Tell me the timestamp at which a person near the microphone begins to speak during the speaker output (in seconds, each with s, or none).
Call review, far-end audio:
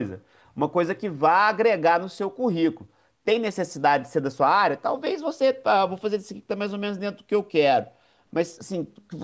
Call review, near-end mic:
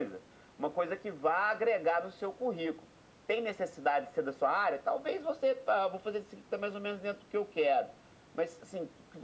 none